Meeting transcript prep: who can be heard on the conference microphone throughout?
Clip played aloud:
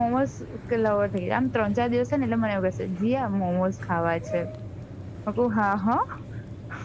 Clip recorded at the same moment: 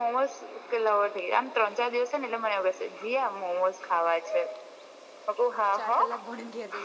both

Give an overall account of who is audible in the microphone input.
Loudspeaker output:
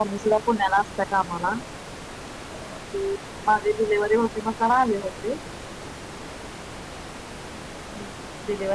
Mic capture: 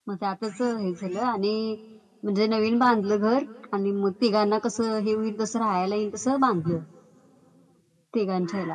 user only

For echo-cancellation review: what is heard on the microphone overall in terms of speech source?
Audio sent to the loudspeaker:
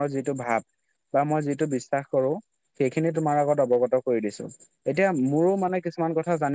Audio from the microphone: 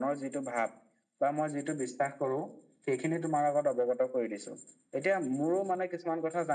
echo only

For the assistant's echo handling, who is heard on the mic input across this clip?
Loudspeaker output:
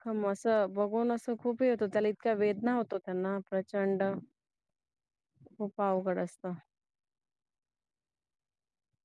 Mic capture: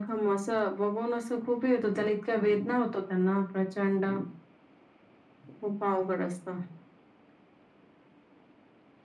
echo only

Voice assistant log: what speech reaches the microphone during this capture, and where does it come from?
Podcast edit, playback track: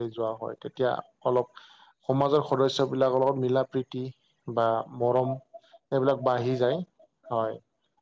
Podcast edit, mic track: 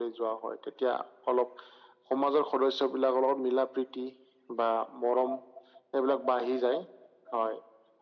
echo only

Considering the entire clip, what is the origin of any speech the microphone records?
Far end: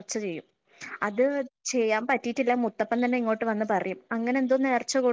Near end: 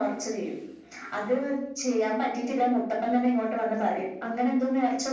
echo only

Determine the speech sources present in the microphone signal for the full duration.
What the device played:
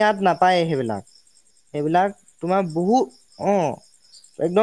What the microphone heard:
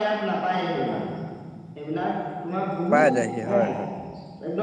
both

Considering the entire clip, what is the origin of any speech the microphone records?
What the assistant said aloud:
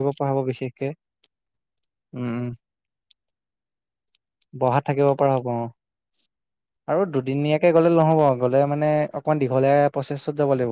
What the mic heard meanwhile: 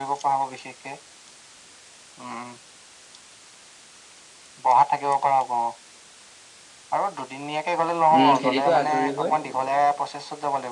both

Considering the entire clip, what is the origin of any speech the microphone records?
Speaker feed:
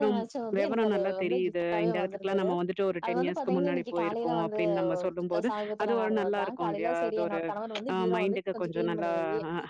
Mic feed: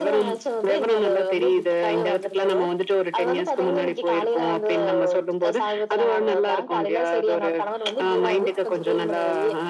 echo only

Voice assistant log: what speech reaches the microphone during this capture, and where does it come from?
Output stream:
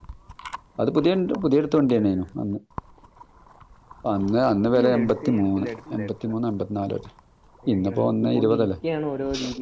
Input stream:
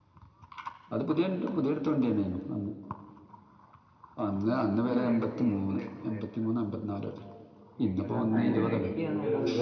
both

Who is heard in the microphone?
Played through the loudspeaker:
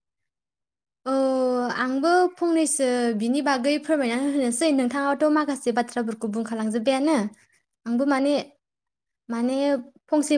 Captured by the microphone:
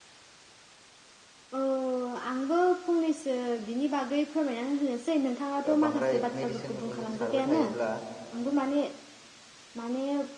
both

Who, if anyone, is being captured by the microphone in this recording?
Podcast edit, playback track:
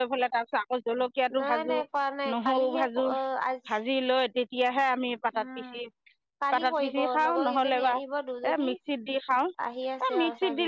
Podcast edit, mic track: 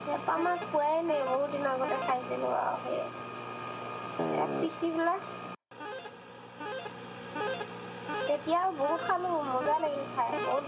user only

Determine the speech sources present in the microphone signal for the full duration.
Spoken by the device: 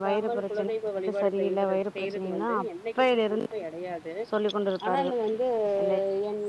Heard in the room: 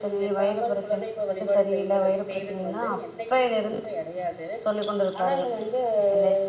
echo only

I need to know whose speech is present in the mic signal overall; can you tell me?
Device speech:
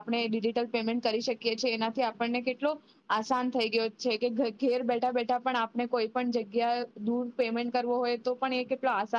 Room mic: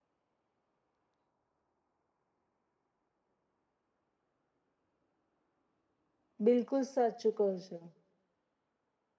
user only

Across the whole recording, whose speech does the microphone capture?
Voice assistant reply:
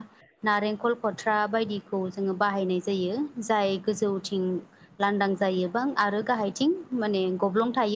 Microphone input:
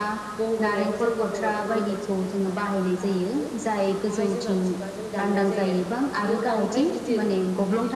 both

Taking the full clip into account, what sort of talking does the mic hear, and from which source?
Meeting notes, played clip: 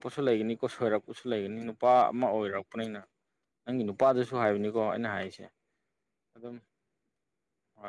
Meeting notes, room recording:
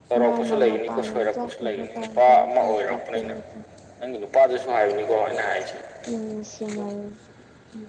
both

